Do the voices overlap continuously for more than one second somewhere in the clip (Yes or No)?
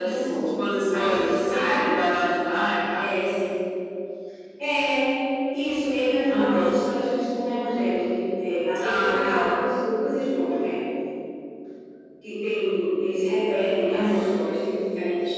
Yes